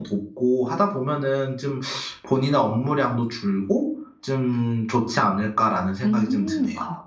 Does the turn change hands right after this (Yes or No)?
Yes